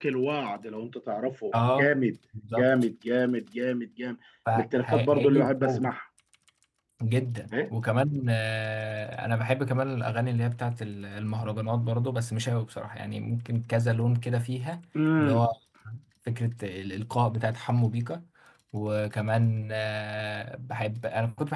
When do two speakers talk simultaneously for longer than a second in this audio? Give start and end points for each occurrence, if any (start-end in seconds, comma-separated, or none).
4.6-5.9